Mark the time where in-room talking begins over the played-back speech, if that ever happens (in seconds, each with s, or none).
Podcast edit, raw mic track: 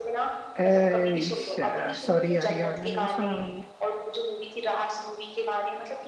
0.6 s